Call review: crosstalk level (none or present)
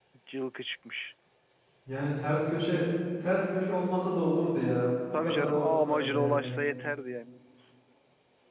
present